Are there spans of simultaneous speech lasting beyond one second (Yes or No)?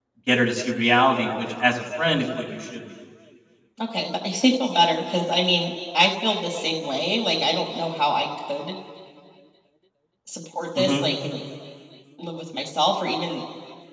No